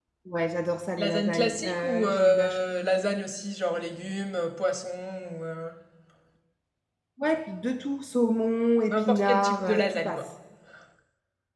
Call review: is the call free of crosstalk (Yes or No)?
No